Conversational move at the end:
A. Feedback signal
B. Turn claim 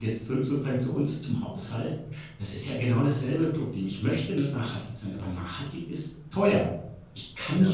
A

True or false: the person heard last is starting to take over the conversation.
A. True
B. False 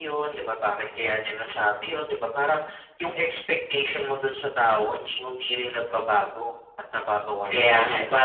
A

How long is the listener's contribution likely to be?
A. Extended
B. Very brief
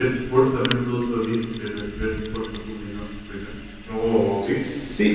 A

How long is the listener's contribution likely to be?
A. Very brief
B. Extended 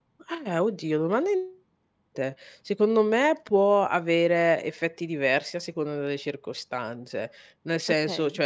A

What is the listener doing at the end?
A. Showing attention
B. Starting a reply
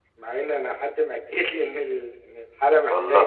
A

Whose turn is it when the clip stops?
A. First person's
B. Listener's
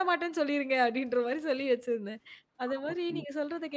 A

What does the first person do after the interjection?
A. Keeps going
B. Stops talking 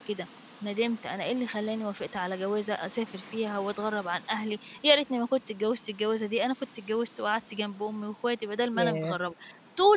A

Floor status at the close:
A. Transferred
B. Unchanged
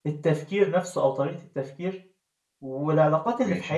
B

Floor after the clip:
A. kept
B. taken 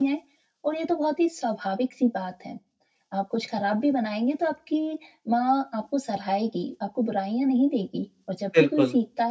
A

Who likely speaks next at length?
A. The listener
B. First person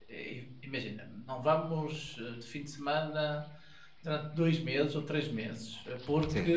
B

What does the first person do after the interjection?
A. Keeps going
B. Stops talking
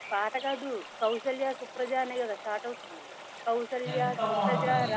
A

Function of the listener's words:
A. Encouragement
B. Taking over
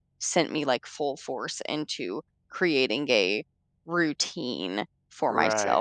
B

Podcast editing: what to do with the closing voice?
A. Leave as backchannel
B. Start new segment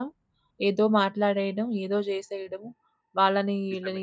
A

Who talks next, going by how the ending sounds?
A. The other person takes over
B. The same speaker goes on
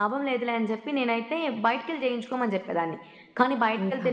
B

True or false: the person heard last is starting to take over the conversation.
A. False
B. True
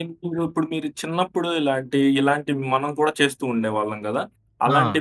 A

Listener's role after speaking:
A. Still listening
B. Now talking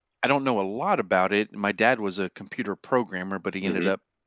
A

